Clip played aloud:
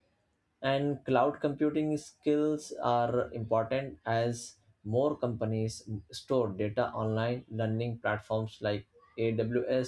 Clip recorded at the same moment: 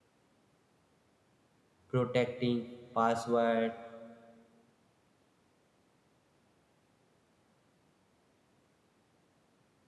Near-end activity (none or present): present